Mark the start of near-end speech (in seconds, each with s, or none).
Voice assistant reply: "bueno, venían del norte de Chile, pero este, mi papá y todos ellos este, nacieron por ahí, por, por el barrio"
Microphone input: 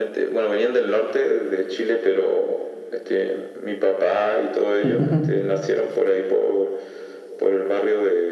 4.8 s